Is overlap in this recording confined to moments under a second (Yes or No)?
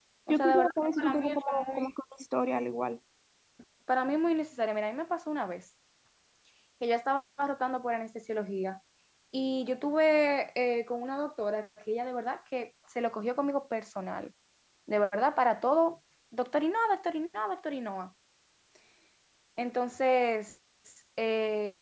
No